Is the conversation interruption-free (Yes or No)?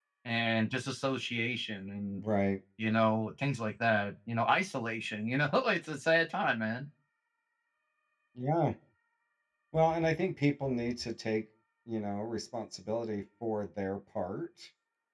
Yes